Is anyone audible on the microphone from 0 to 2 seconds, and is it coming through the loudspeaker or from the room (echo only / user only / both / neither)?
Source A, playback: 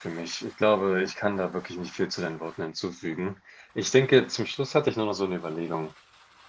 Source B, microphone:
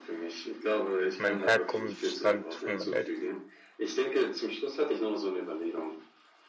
both